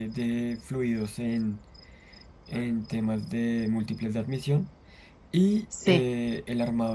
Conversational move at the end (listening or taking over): listening